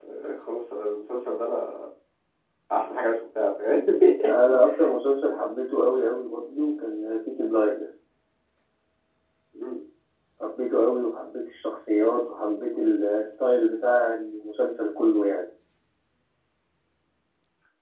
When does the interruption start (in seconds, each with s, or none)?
none